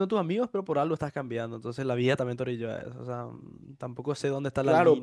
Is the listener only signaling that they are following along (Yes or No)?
No